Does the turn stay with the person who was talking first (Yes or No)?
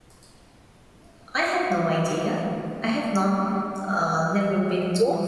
No